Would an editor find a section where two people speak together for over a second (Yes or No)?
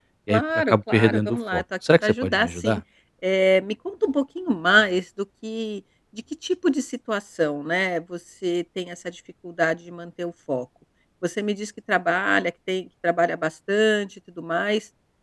Yes